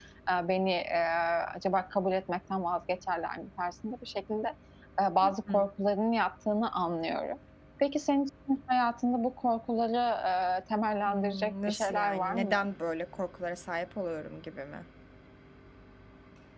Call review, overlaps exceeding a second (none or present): present